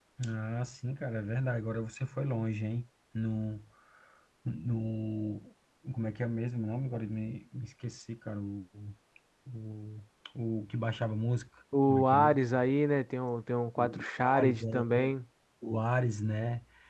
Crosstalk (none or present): present